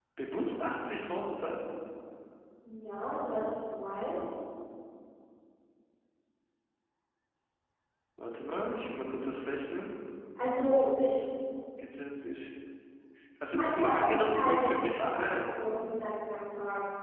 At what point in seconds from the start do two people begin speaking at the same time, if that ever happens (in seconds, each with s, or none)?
13.5 s